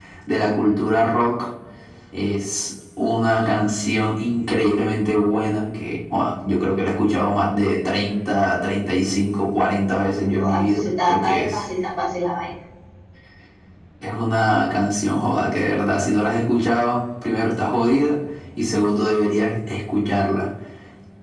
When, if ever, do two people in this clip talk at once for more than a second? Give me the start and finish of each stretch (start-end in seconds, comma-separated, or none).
10.4-11.6